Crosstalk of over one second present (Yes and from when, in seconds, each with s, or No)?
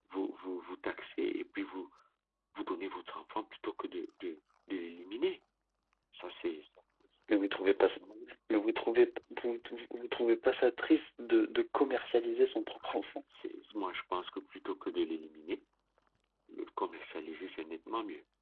No